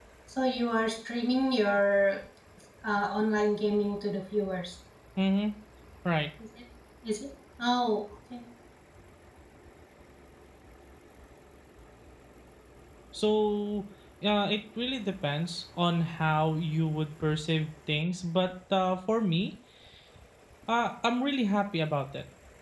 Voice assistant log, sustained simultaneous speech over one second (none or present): none